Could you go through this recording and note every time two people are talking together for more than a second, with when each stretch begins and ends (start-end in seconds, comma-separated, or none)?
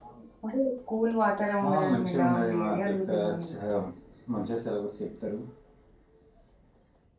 1.7-3.5